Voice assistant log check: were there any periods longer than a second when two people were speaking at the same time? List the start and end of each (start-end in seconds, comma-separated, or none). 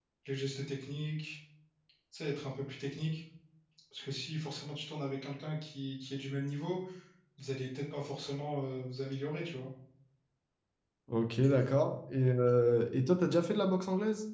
none